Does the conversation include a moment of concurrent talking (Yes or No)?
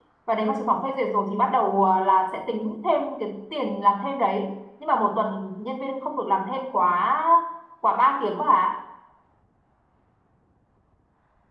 No